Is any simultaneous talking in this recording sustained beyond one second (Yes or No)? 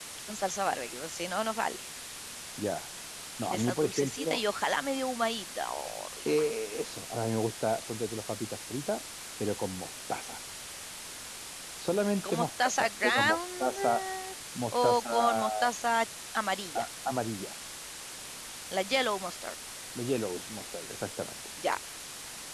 Yes